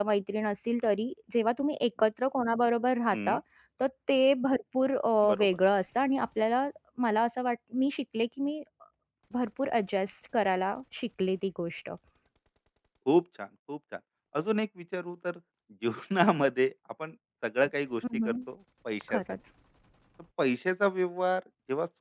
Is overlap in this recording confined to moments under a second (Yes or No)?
Yes